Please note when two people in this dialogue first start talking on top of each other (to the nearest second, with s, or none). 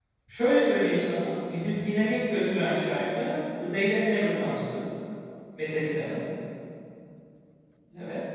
none